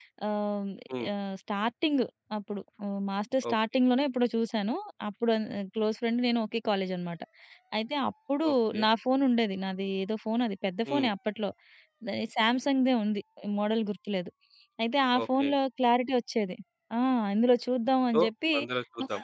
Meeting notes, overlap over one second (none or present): none